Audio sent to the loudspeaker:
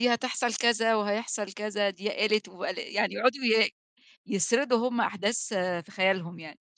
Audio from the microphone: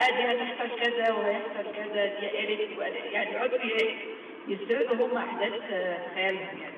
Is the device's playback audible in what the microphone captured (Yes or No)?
Yes